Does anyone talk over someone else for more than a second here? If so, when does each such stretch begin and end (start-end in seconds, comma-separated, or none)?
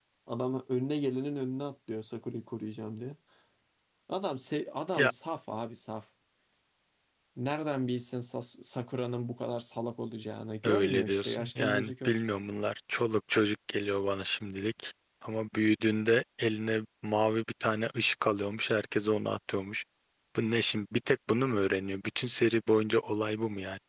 10.6-12.2